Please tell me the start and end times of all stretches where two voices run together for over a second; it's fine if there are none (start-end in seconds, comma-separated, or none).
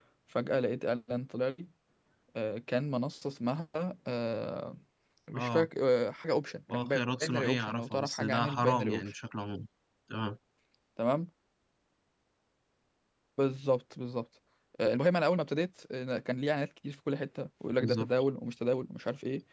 6.7-9.1